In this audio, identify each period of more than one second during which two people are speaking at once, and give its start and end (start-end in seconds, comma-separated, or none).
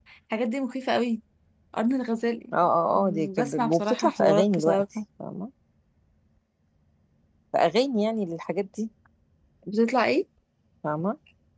2.9-4.8